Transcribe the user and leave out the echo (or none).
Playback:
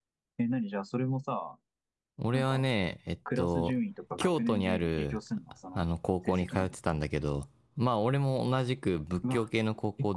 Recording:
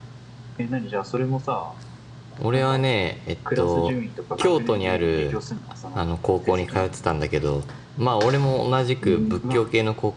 えー